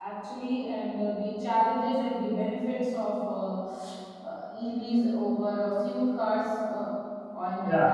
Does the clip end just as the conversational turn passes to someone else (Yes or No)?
Yes